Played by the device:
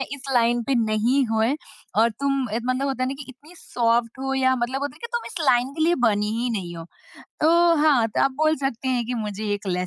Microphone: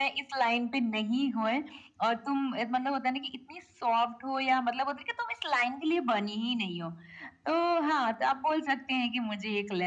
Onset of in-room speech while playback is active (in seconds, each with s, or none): none